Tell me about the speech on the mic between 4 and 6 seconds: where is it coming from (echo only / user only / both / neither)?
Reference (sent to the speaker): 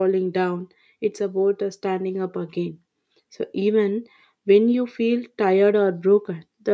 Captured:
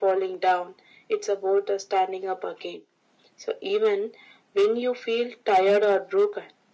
echo only